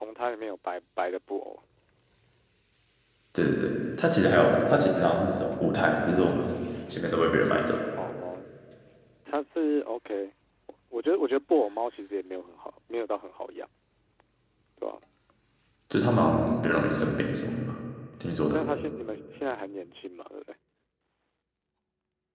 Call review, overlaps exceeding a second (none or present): none